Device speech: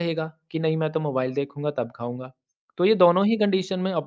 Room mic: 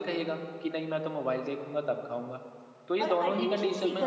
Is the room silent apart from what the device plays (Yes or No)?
No